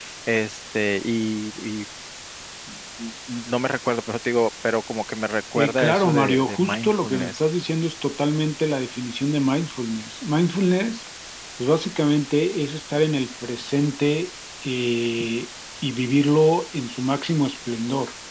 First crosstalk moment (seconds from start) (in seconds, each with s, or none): 5.5 s